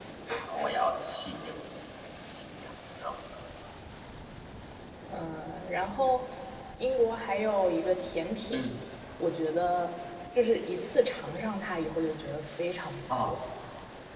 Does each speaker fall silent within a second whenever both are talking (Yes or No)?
Yes